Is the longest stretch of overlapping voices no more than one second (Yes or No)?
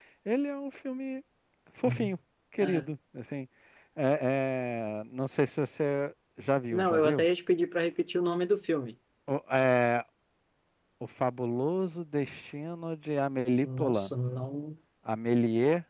Yes